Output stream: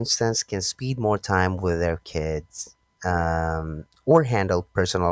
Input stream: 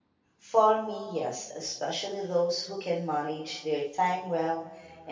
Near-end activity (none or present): present